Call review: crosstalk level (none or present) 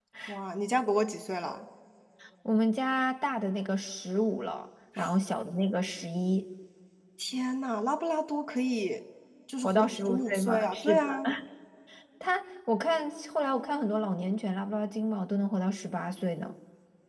present